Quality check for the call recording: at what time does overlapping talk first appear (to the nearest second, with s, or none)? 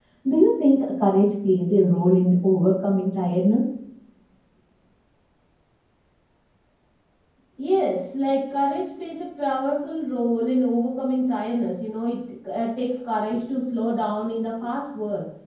none